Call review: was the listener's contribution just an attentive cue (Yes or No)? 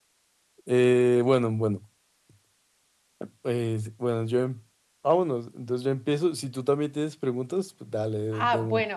No